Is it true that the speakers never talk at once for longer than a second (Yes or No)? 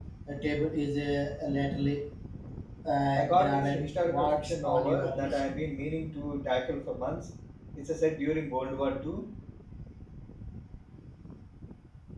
No